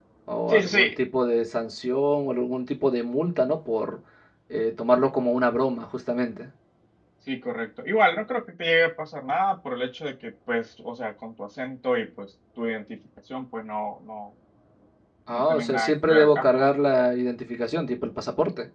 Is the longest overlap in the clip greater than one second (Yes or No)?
Yes